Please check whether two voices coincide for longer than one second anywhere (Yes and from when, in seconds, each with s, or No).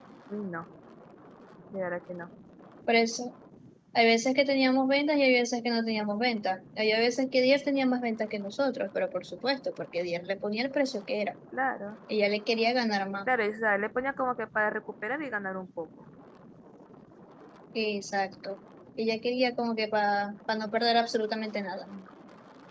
No